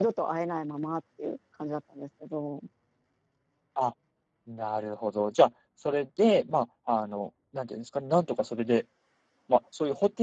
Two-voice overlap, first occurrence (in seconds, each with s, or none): none